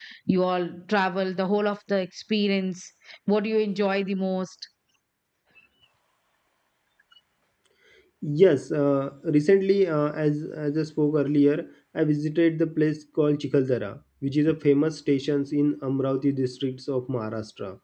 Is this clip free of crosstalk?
Yes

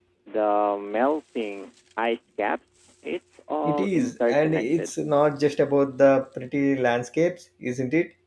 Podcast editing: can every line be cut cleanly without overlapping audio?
No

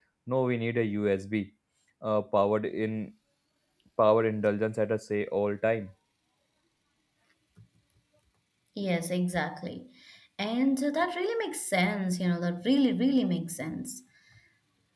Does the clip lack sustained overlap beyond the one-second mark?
Yes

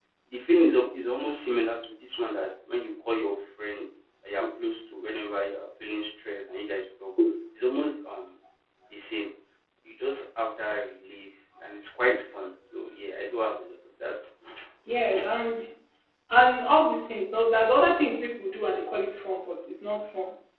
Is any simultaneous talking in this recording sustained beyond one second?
No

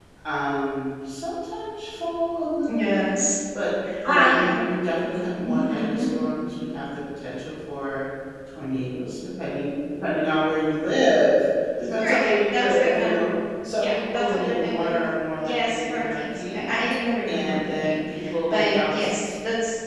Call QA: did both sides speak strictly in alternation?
No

